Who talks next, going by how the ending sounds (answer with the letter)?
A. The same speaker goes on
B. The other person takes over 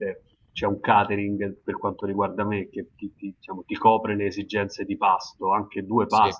A